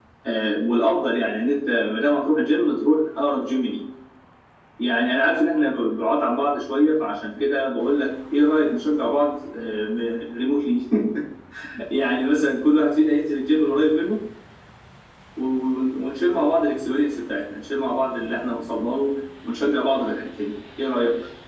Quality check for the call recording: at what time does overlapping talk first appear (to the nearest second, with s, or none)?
none